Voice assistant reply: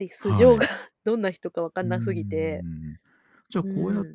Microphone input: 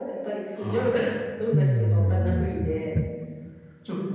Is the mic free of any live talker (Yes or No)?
No